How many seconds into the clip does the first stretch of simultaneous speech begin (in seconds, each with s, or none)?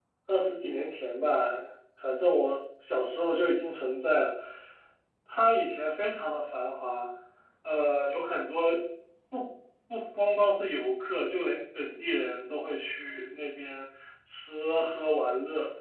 none